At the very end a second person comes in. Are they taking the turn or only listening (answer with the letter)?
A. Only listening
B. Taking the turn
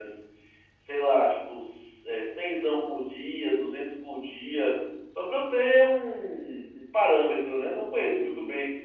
B